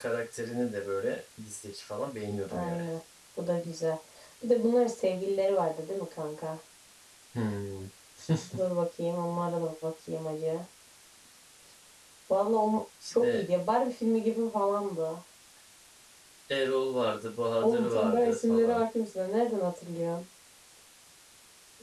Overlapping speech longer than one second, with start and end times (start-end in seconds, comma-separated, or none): 17.6-18.8